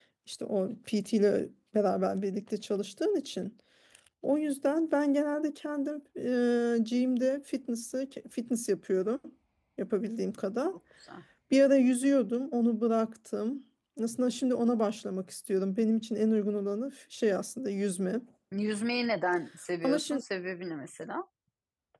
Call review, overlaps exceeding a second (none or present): none